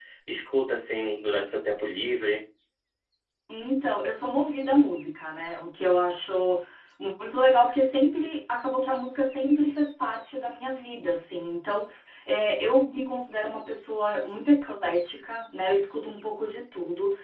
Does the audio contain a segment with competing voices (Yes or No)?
No